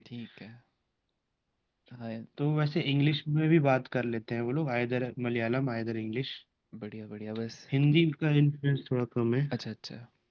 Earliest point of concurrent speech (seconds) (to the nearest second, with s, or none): none